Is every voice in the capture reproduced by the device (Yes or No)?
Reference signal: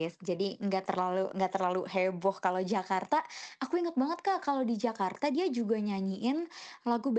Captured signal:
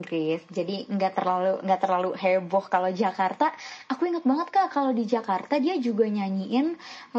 Yes